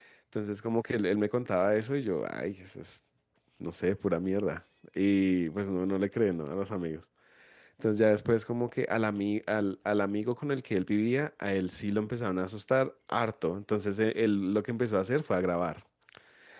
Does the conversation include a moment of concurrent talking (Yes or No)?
No